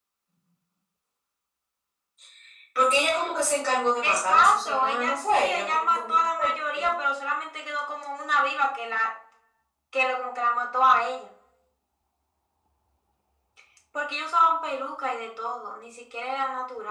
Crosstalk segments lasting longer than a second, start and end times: 4.0-6.2

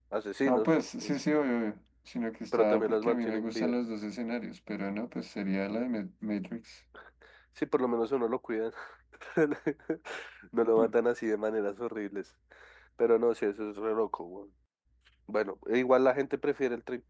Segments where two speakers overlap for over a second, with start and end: 2.5-3.8

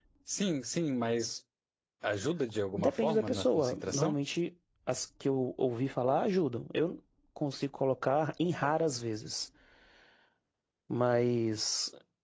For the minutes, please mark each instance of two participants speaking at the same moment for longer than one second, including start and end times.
2.8-4.2

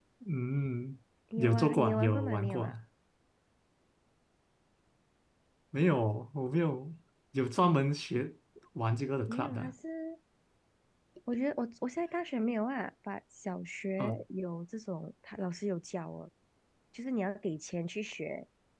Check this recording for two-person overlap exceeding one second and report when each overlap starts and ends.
1.4-2.7

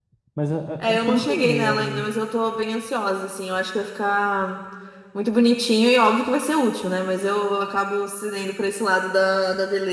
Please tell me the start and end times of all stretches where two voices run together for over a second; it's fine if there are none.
0.8-2.1

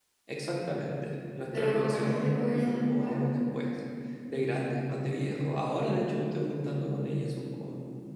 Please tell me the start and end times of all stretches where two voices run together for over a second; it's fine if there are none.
1.5-3.2

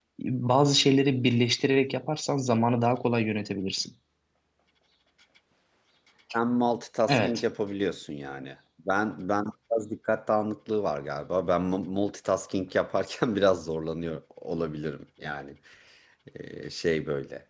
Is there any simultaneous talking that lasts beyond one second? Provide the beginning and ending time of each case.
none

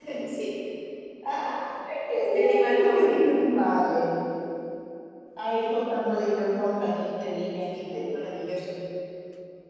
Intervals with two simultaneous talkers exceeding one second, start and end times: 2.0-3.4

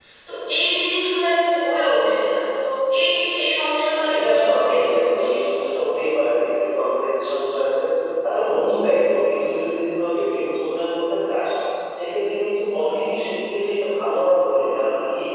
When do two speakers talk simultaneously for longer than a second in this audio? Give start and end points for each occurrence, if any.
3.9-5.3

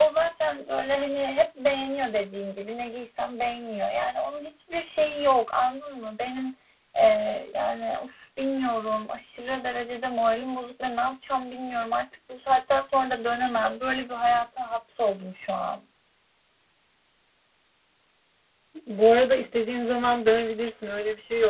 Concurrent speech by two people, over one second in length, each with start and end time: none

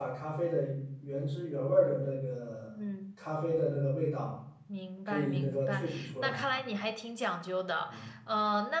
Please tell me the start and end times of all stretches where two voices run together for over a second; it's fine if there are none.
5.0-6.5

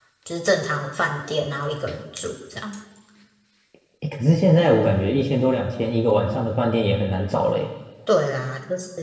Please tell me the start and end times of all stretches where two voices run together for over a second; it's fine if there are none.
none

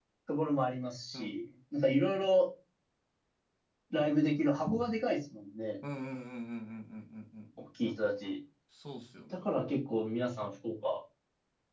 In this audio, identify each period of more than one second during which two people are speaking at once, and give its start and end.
none

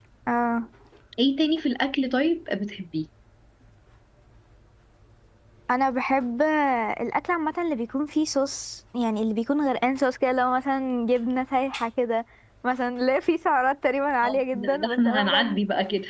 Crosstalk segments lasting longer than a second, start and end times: 14.2-15.6

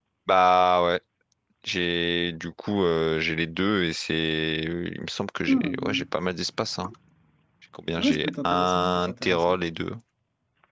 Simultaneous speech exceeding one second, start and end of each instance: 8.0-9.6

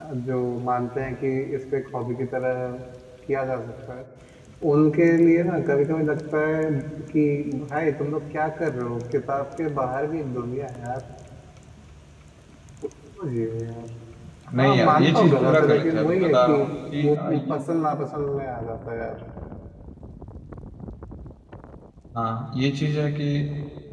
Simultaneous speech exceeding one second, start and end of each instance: 14.6-16.6

